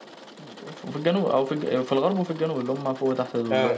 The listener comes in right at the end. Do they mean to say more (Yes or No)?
No